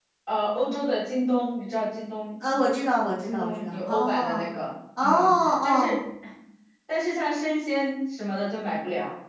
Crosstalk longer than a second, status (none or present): present